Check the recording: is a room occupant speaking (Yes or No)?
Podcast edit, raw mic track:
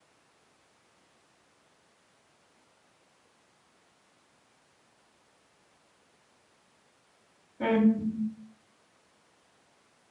Yes